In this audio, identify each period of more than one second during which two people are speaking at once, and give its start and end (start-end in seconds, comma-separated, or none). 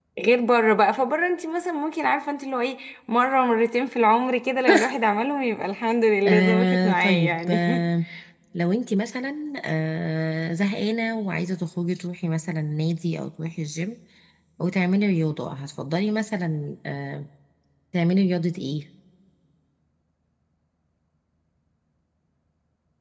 6.3-7.5